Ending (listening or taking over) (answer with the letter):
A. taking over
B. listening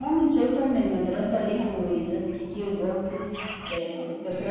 B